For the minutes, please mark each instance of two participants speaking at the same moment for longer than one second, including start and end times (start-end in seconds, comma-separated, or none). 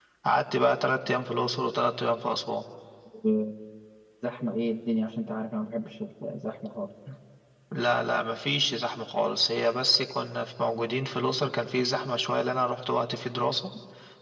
none